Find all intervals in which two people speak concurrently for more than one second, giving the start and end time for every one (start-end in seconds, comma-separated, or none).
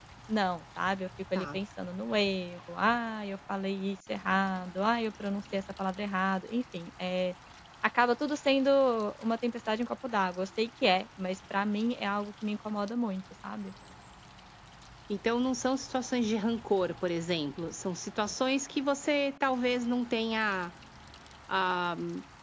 none